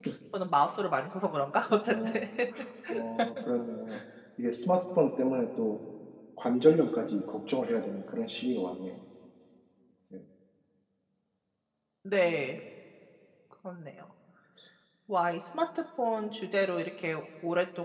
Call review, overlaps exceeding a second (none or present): none